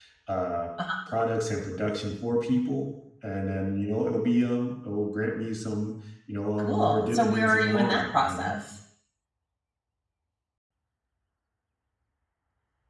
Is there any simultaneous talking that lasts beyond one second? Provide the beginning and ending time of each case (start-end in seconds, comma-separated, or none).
6.6-8.6